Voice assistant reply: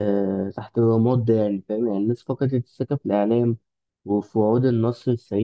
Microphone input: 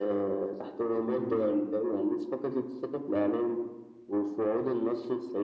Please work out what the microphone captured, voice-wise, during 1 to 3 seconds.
echo only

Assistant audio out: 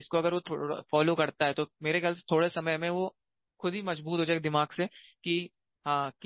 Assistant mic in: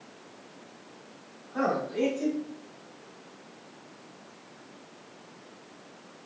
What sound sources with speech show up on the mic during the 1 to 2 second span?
user only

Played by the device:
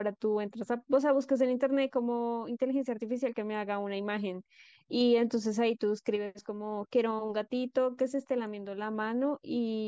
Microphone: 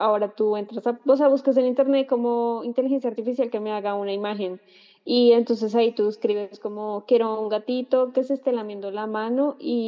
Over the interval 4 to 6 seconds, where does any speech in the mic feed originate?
echo only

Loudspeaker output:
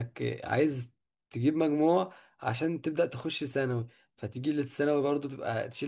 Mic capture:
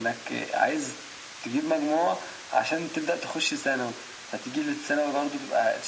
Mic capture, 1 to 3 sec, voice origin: echo only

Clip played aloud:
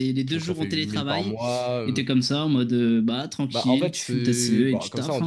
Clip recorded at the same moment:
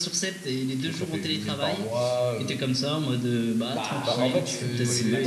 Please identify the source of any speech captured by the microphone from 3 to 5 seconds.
both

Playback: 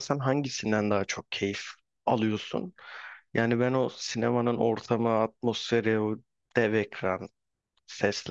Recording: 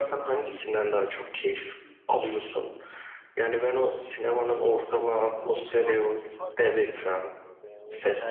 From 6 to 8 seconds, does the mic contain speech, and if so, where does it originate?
both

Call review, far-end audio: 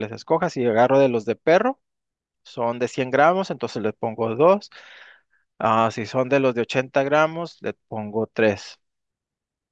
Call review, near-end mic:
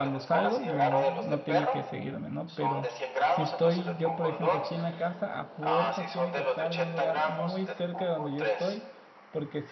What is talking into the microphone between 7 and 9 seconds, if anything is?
both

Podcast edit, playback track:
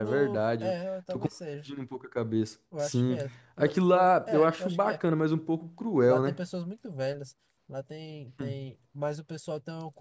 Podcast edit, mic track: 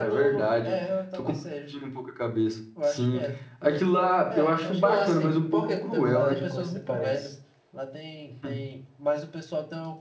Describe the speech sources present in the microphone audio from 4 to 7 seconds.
both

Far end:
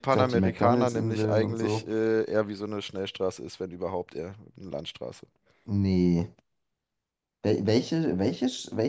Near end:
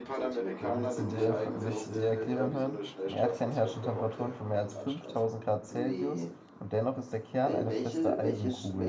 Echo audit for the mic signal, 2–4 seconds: both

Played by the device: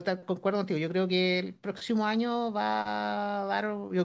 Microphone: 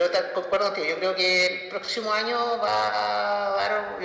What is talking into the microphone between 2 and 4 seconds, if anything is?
echo only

